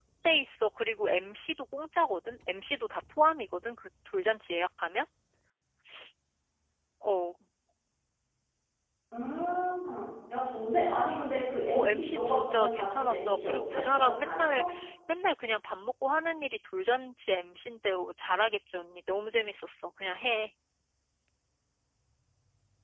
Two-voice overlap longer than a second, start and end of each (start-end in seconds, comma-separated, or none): 11.7-14.6